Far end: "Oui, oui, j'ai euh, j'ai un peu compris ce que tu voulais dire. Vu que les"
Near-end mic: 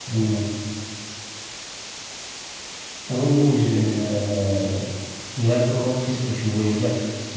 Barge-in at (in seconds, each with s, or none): none